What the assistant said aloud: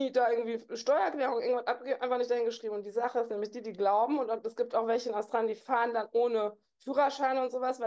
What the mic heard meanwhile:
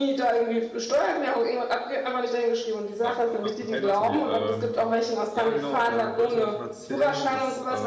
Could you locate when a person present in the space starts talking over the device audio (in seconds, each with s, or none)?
3.0 s